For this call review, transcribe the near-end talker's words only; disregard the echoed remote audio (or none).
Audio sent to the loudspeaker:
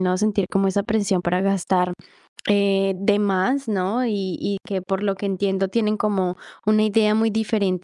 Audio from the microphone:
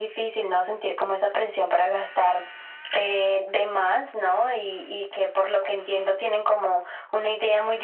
none